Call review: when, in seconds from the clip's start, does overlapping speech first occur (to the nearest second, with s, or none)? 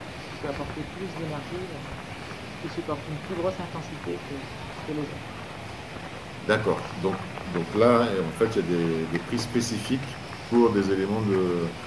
none